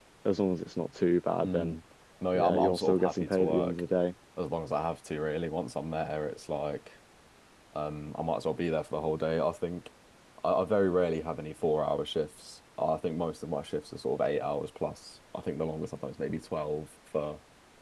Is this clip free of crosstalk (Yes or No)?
No